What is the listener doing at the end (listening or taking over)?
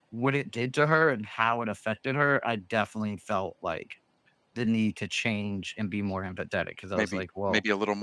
taking over